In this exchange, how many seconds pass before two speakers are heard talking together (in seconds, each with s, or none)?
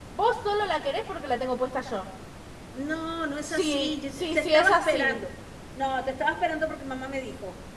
3.5 s